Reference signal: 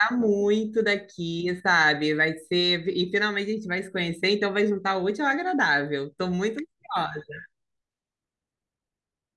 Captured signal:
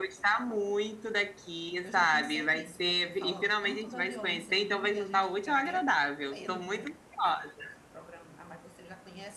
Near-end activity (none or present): present